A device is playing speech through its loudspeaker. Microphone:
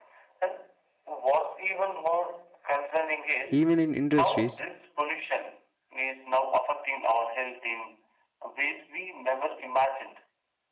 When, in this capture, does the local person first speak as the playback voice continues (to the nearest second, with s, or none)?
3 s